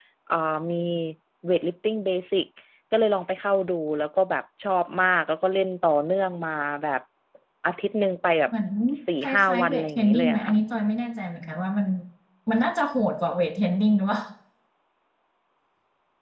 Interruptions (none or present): present